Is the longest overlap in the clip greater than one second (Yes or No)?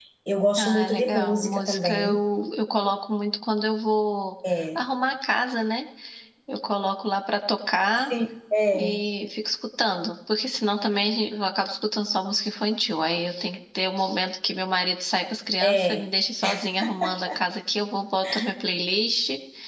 Yes